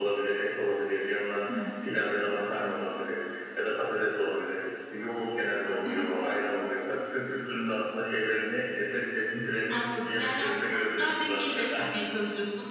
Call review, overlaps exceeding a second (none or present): present